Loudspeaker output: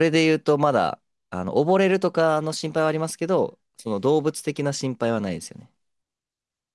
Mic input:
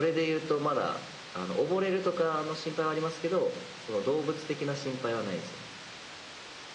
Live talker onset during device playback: none

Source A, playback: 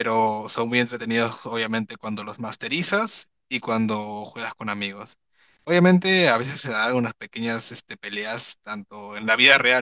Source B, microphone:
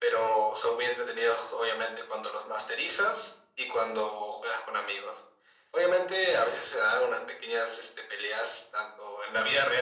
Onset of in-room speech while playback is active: none

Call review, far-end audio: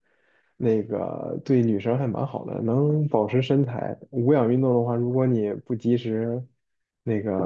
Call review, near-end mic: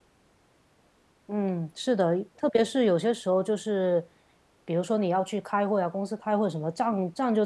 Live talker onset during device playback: 1.3 s

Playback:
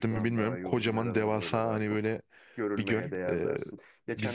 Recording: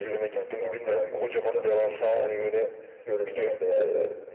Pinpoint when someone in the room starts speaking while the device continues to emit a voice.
none

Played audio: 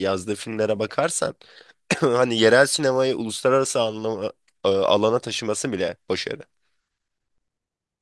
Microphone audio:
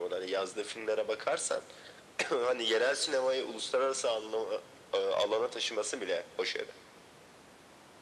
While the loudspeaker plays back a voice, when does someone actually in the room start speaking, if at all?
none

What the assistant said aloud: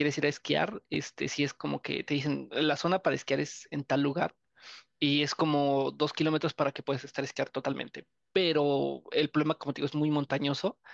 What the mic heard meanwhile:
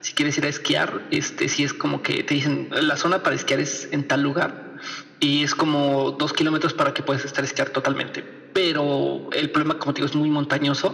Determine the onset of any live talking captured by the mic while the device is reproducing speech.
none

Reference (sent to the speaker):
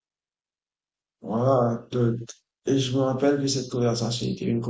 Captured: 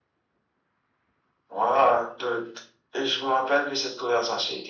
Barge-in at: none

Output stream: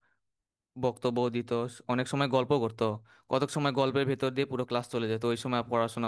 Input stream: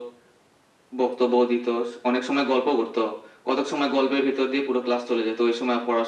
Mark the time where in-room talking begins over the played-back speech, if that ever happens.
none

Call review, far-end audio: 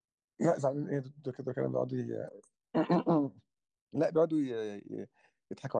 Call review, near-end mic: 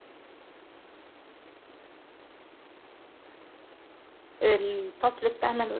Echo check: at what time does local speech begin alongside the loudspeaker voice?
4.4 s

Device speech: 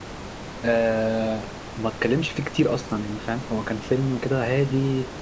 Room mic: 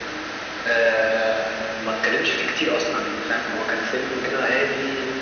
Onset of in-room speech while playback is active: none

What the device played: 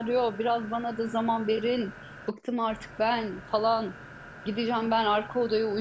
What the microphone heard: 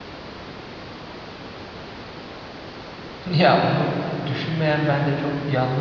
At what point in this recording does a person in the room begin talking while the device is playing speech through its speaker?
3.3 s

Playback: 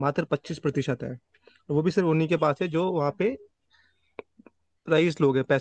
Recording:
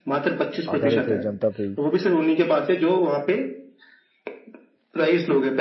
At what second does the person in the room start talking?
0.7 s

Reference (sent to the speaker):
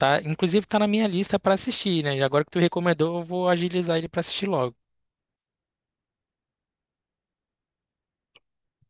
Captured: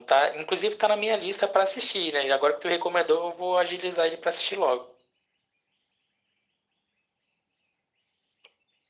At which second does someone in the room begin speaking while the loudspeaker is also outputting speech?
none

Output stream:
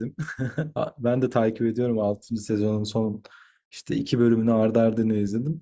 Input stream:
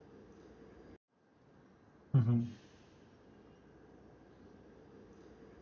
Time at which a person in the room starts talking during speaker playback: 2.1 s

